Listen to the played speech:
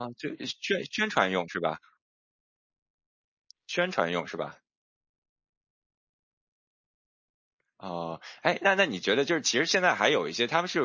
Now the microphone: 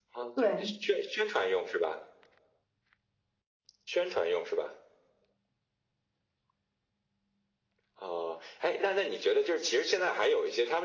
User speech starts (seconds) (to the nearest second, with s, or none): 0 s